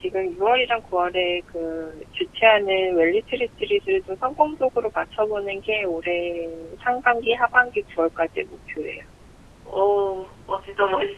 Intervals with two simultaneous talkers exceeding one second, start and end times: none

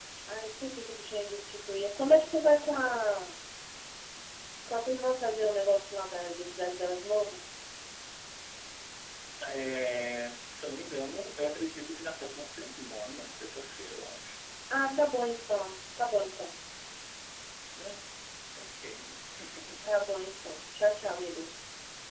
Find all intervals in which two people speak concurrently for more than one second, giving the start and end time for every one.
none

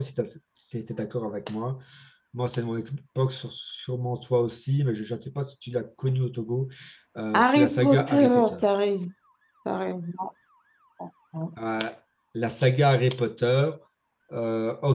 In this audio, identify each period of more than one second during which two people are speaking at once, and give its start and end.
7.3-8.6

